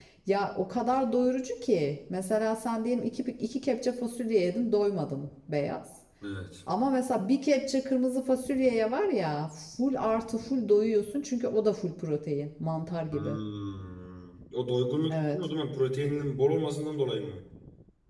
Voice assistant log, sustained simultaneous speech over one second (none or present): none